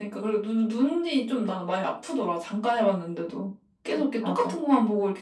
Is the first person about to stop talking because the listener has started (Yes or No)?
No